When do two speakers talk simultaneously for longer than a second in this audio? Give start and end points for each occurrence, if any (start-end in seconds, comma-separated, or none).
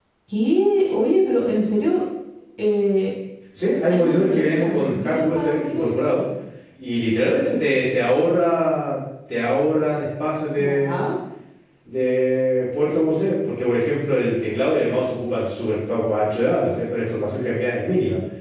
3.9-6.1